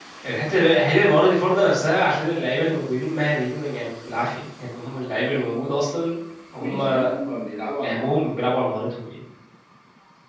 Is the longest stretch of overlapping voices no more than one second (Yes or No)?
Yes